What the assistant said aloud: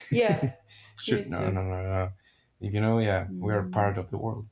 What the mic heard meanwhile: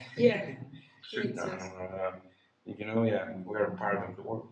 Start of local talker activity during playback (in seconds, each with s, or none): none